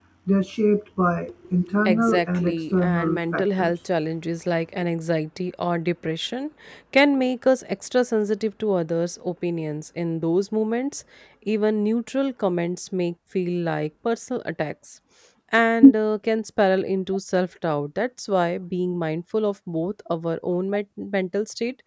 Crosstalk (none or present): present